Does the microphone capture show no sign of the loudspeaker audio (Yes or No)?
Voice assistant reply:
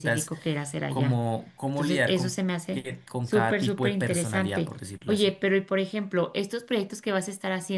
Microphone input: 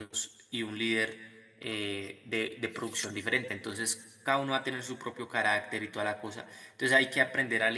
Yes